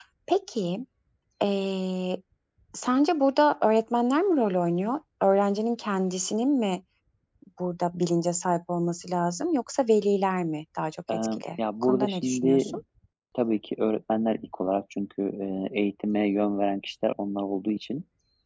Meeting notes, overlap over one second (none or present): present